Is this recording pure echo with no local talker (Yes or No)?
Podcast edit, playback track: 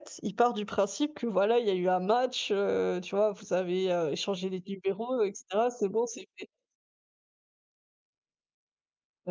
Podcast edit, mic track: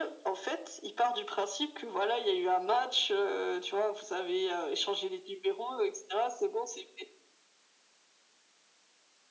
Yes